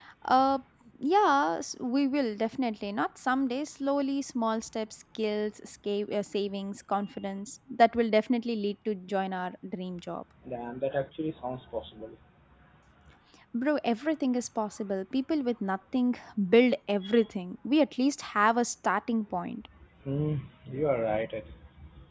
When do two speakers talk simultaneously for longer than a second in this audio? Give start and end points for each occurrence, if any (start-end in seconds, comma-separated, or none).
none